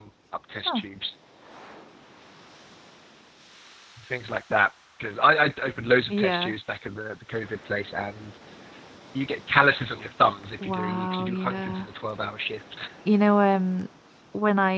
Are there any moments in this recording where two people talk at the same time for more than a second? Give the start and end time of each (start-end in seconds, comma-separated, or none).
10.6-11.9